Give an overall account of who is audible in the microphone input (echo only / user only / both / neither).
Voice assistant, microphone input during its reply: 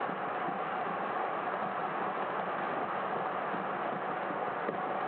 neither